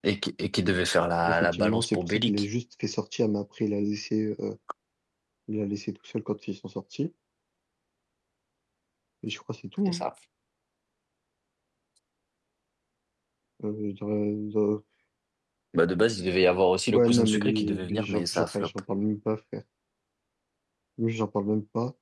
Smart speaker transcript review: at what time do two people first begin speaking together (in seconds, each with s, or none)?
1.2 s